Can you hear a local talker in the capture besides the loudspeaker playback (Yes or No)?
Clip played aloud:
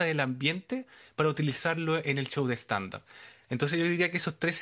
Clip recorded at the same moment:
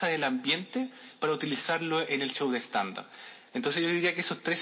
No